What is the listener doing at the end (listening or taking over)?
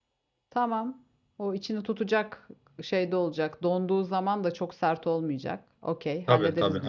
taking over